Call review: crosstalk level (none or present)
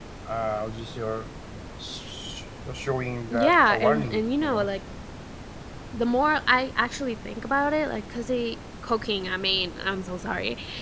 present